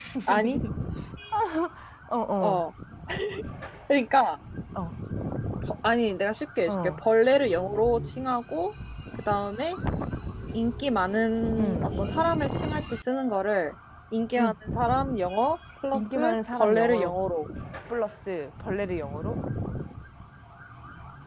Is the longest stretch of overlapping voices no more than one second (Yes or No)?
No